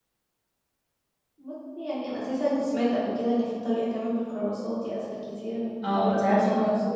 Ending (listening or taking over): taking over